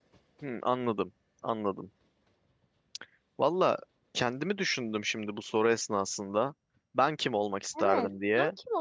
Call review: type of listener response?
taking over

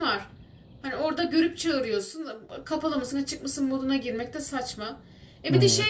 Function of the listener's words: listening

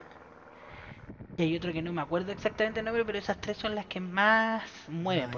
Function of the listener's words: taking over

